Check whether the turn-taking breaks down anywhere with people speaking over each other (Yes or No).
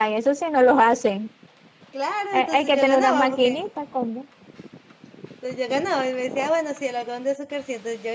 Yes